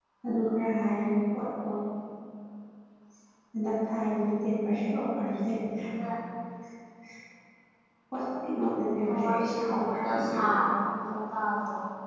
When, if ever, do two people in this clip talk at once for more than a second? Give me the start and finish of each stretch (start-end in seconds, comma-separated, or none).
8.9-10.4